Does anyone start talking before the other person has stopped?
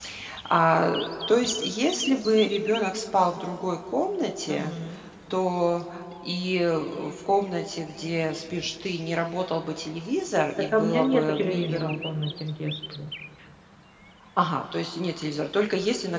Yes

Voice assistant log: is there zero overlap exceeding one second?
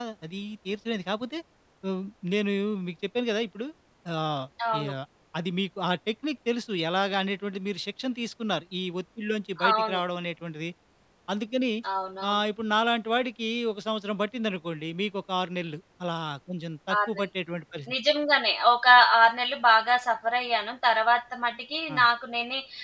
Yes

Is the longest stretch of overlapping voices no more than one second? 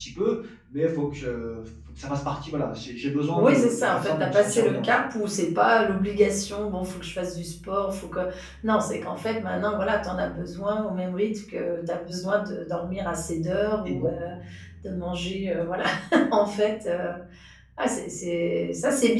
No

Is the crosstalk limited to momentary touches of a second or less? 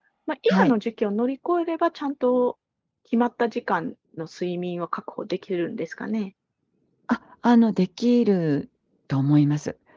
Yes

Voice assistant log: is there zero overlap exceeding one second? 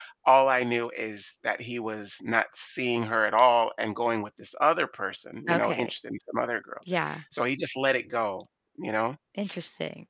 Yes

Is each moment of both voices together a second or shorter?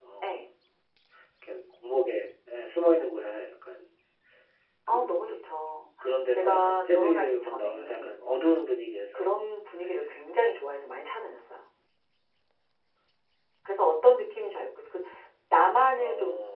No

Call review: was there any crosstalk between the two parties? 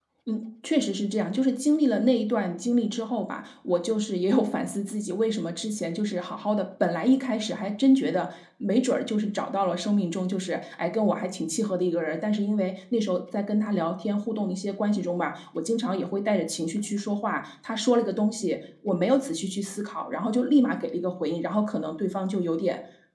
No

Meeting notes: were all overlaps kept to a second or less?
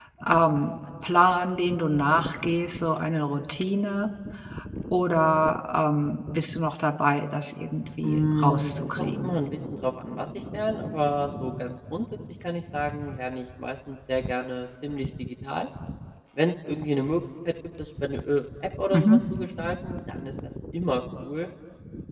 No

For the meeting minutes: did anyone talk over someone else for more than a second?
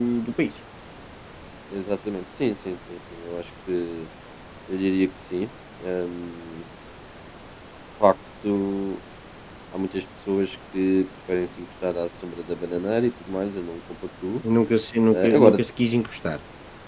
No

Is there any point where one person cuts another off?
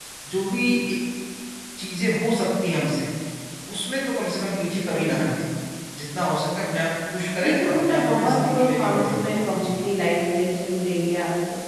Yes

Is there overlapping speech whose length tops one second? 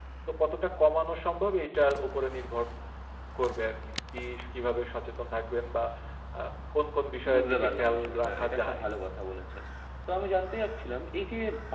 Yes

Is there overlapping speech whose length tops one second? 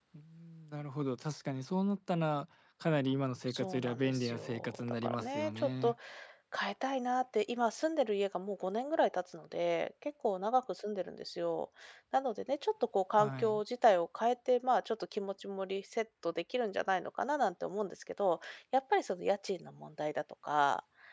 Yes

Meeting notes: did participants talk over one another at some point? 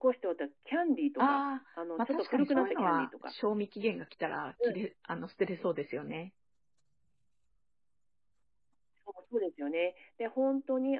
Yes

